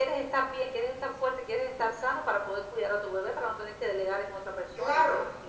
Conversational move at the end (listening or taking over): taking over